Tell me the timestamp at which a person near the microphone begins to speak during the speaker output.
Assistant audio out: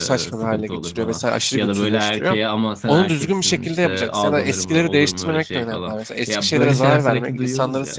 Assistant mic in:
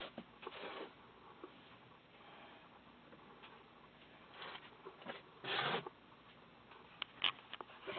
none

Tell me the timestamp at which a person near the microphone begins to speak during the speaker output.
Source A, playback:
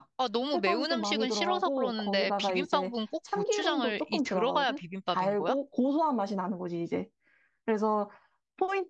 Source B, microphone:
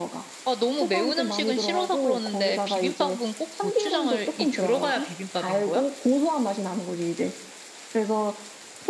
none

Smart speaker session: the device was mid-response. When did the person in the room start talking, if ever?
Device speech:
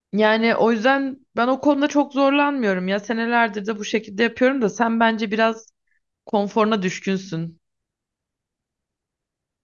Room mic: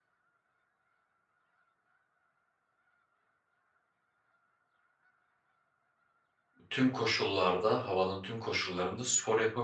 6.7 s

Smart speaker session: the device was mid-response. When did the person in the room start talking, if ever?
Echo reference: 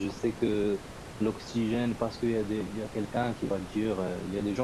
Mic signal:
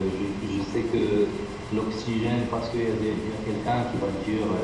none

